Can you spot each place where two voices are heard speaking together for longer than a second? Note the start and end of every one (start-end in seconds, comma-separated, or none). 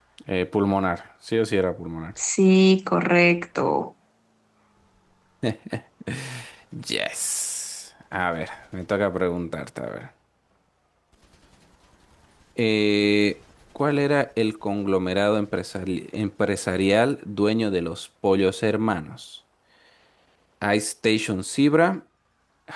none